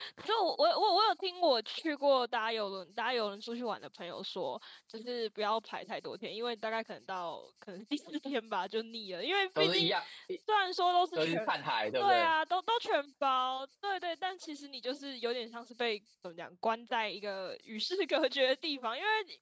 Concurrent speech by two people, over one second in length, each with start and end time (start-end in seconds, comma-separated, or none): none